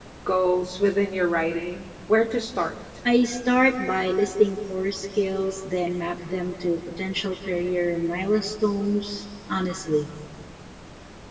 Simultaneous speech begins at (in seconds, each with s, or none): none